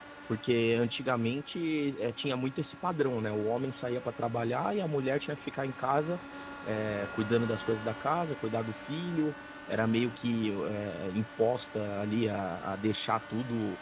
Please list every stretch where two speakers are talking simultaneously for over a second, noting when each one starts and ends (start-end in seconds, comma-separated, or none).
none